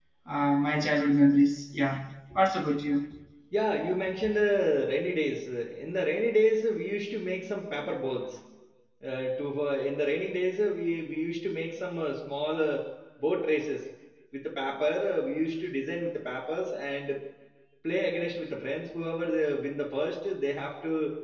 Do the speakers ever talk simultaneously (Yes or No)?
No